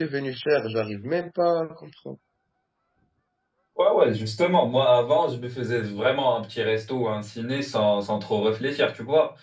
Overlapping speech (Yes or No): No